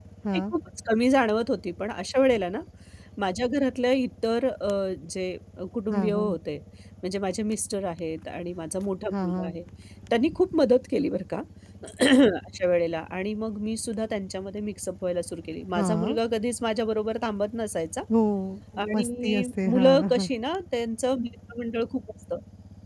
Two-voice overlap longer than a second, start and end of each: 18.9-20.3

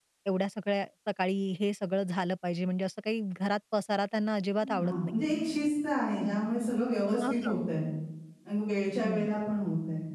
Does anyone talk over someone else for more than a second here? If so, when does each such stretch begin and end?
none

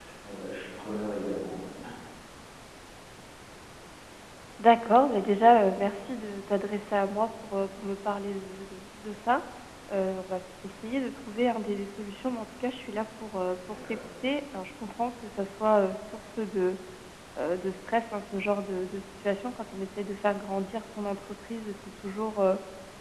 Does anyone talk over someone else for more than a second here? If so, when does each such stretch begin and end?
none

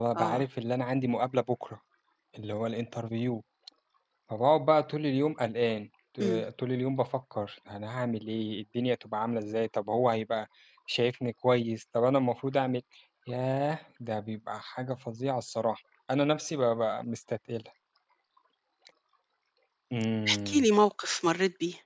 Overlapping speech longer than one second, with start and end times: none

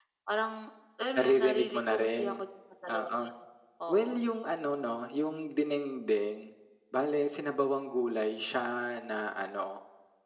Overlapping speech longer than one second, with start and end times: 1.1-2.4

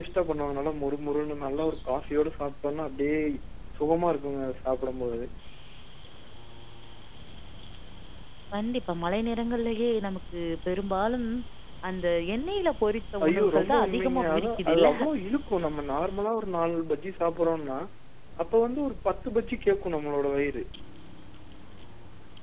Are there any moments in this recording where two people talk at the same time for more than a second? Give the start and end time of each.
13.2-14.9

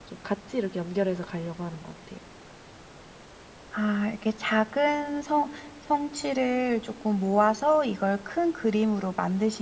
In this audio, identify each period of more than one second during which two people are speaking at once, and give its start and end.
none

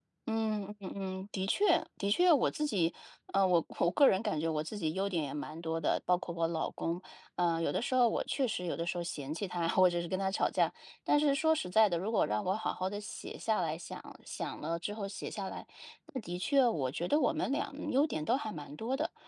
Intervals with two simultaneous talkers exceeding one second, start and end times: none

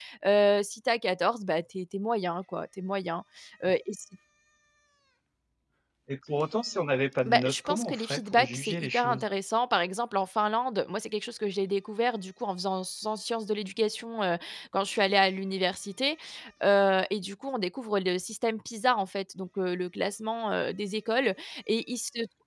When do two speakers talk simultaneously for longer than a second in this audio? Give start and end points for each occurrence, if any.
7.3-9.2

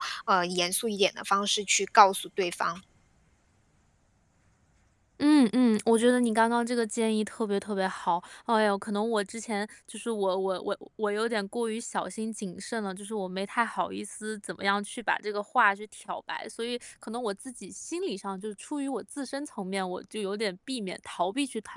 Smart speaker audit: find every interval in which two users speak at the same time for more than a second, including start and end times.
none

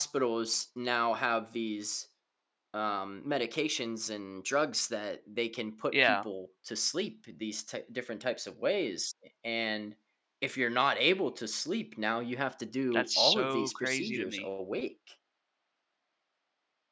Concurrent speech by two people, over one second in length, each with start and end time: 12.9-14.4

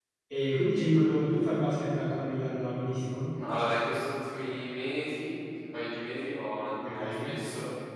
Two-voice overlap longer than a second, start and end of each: none

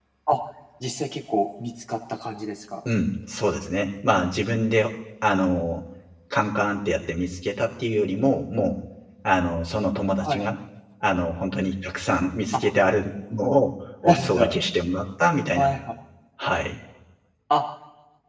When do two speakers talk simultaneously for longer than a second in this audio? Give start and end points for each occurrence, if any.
none

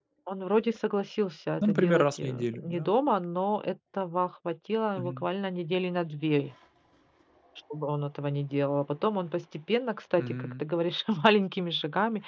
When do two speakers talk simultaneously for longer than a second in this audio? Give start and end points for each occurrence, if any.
1.6-2.9

